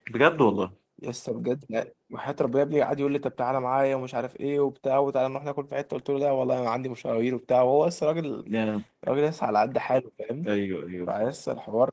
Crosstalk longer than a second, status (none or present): none